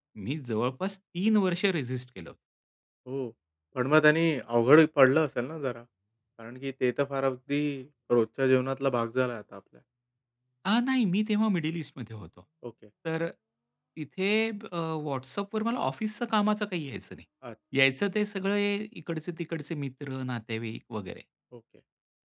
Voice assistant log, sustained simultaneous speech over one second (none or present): none